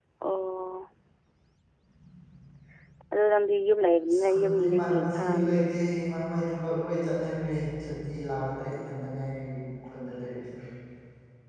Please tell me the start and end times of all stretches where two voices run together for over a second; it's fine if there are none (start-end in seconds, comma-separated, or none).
4.3-5.6